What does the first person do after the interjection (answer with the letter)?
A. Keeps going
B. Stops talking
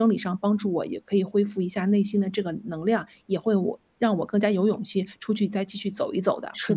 B